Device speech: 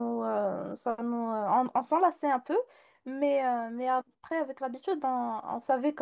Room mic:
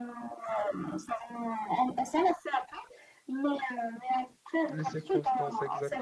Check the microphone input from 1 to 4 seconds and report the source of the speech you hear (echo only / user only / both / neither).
echo only